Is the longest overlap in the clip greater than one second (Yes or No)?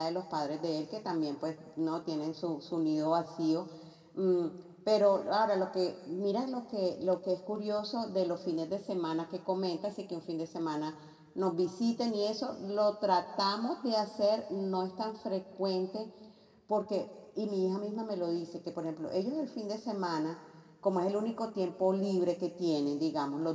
No